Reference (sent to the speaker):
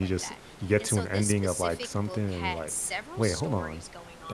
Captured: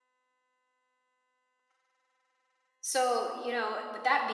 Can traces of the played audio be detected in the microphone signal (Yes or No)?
No